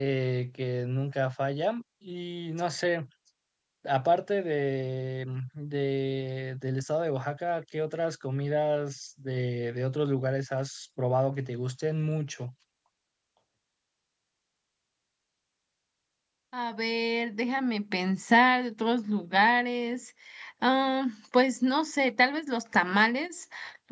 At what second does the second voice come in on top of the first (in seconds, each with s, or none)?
none